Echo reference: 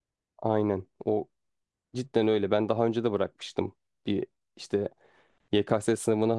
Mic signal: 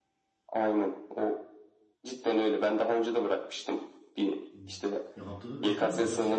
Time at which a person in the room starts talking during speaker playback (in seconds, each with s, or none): 4.5 s